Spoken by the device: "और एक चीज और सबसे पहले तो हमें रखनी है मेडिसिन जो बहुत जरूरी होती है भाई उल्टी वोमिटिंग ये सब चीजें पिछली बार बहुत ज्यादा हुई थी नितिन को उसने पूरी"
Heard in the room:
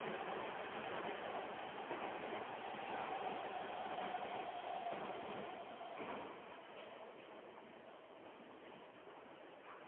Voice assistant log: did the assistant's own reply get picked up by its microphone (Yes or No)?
No